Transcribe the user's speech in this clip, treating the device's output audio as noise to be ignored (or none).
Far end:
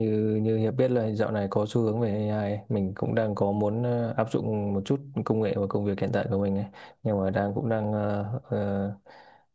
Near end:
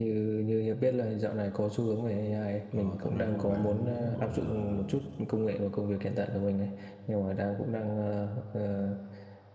Ờ, thật ra nếu mà bạn muốn gọi là